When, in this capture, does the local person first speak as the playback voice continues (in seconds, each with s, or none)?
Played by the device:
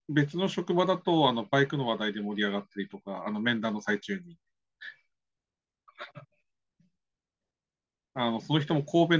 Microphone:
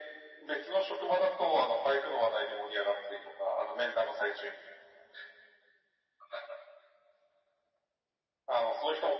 none